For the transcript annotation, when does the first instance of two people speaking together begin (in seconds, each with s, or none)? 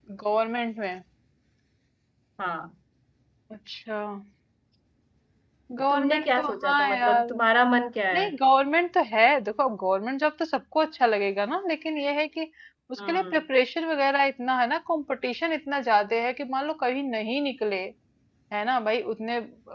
5.9 s